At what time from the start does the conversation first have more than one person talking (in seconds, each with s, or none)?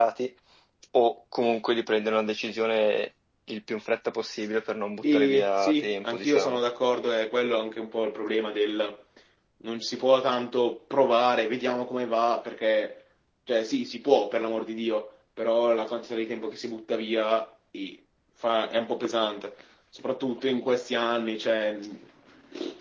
5.0 s